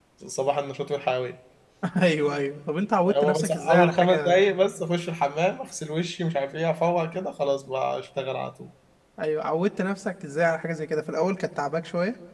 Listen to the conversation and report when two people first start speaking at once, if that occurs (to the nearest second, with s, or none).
3 s